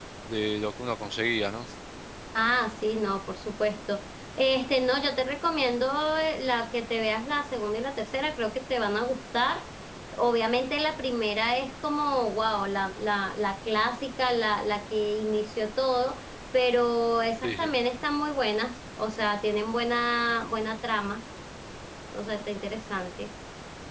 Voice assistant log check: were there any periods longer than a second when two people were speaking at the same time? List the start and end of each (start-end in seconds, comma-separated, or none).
none